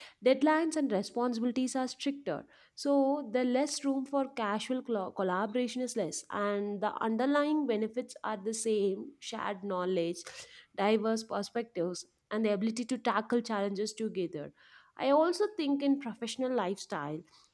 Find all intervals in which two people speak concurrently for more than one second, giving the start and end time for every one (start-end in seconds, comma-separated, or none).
none